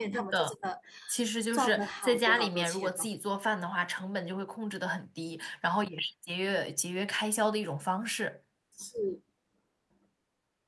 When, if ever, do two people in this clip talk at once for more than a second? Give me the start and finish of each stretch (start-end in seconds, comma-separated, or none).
1.5-3.1